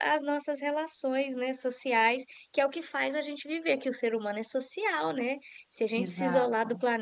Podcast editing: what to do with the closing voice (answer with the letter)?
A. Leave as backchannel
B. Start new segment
A